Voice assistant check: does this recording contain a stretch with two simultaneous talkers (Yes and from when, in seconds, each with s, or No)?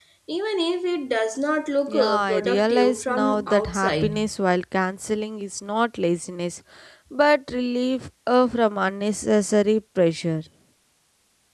Yes, from 1.9 s